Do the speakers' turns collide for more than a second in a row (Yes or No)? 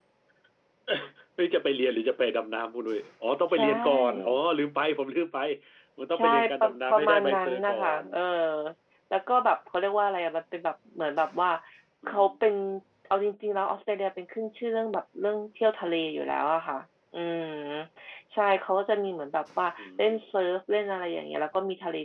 Yes